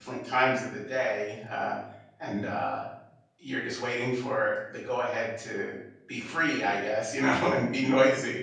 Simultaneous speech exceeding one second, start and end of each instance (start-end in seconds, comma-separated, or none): none